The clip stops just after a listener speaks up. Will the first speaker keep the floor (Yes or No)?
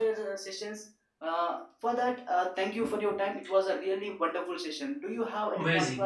No